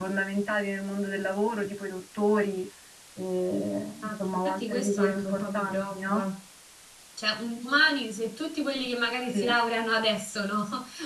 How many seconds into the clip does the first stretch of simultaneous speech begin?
4.0 s

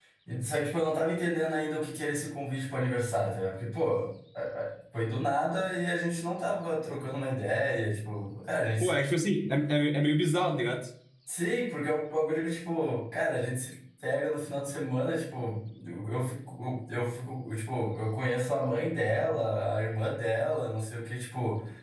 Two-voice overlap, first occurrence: none

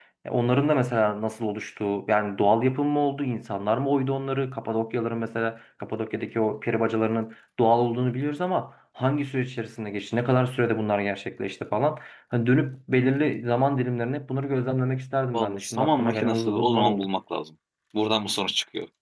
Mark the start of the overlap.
15.3 s

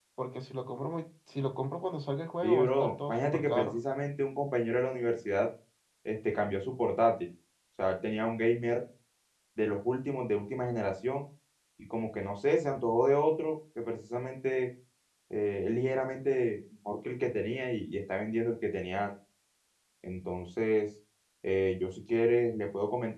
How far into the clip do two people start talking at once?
2.4 s

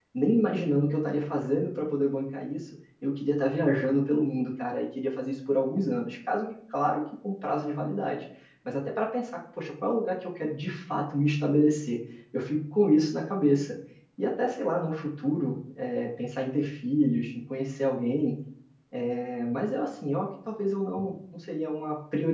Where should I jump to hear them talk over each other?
none

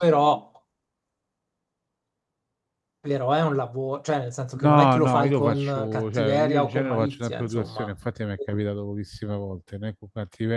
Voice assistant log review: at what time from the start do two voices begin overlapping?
4.5 s

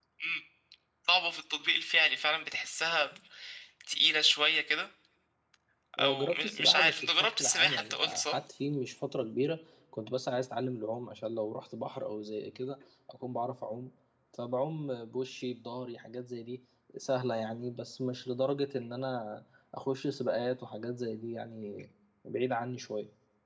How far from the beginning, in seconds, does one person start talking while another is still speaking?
6.0 s

